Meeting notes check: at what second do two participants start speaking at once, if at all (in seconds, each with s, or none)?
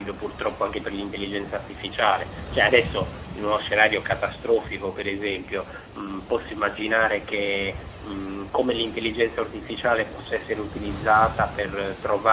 none